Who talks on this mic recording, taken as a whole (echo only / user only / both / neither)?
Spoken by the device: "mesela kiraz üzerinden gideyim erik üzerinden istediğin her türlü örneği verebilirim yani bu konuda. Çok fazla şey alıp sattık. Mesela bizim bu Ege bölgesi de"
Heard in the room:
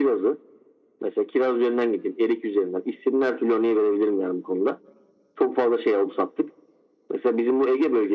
echo only